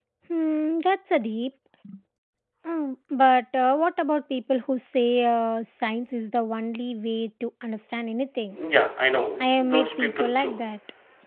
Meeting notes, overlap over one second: present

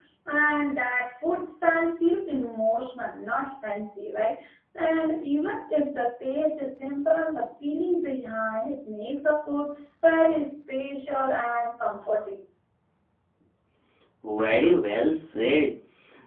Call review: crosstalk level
none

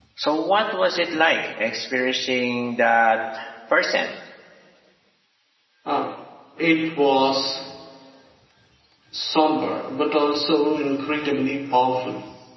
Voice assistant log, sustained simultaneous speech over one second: none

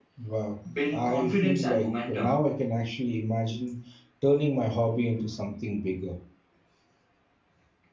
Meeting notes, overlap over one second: present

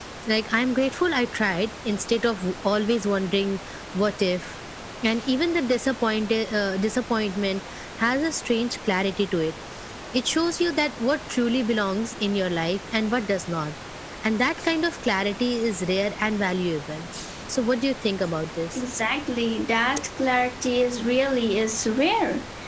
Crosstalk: none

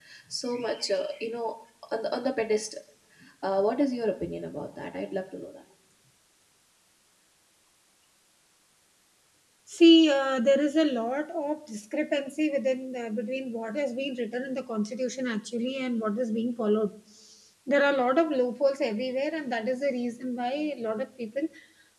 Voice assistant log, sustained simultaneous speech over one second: none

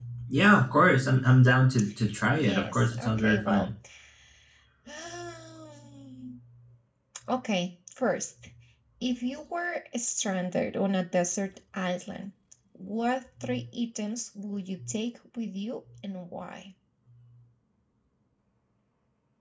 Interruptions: present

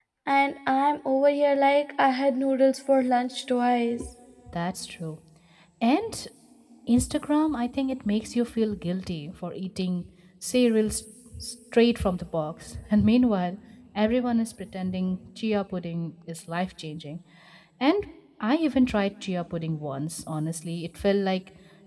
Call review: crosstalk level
none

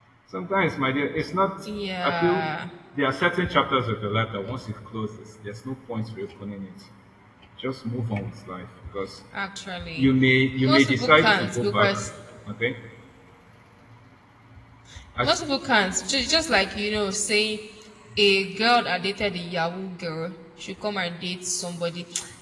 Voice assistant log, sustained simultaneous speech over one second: present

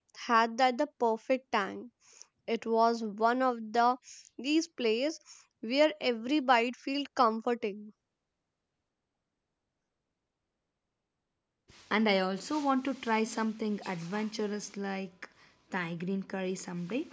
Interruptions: none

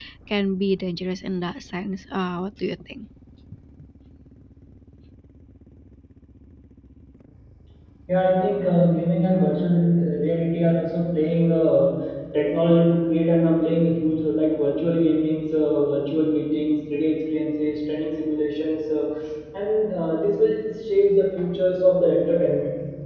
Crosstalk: none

